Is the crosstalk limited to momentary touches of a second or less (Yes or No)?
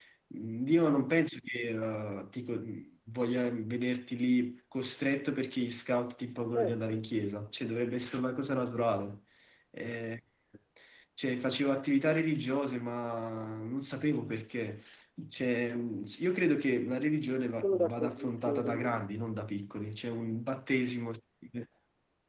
No